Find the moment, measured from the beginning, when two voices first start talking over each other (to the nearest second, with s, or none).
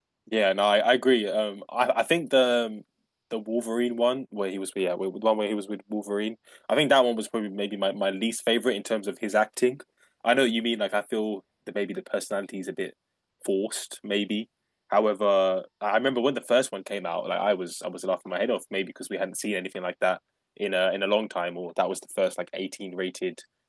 none